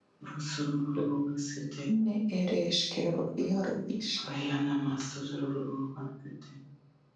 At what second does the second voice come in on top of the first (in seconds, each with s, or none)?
none